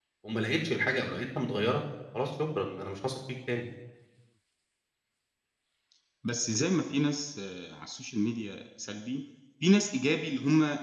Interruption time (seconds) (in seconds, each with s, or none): none